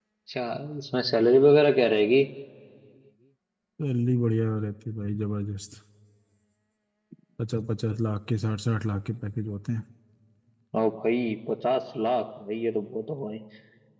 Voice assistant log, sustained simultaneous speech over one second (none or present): none